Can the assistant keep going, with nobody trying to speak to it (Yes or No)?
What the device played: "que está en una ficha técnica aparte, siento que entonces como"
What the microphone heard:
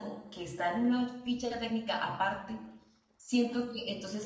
Yes